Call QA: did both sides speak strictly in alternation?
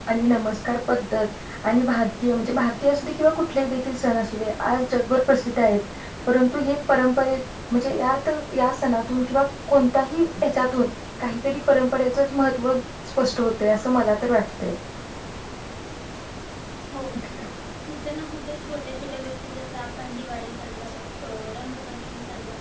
Yes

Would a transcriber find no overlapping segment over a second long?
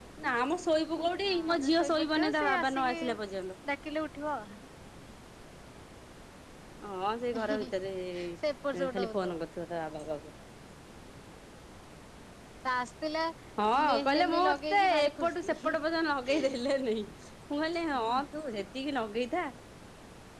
No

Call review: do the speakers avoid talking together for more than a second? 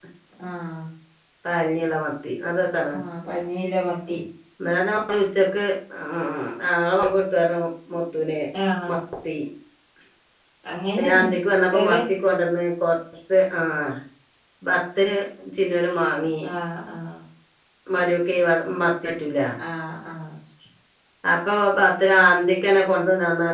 Yes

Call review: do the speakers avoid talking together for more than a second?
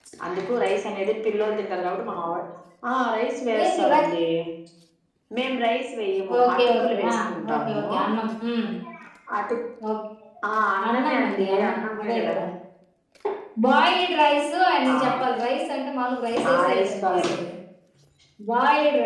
No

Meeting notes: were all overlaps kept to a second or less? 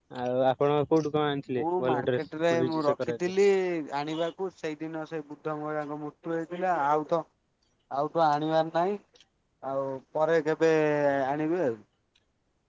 No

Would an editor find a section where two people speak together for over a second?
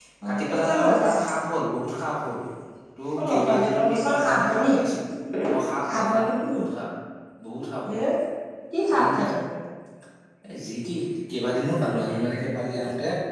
Yes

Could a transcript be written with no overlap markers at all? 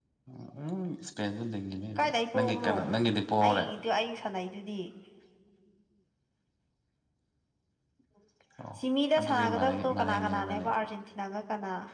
No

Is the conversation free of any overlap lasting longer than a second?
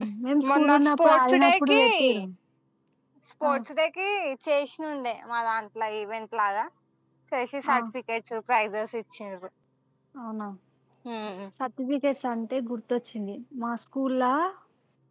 No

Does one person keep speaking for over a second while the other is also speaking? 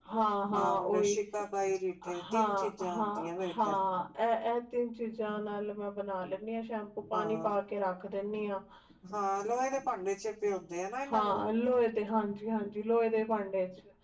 Yes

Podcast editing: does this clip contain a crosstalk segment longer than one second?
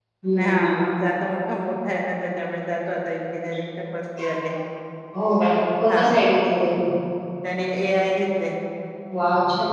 No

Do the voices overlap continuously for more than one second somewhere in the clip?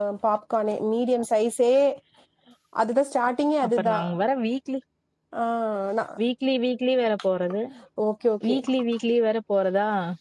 No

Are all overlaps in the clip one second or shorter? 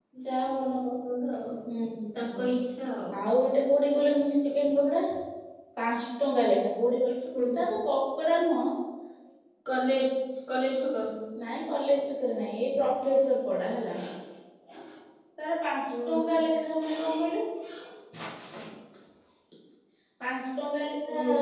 Yes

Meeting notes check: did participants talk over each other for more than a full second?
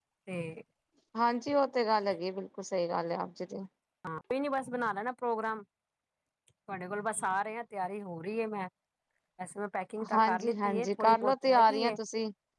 Yes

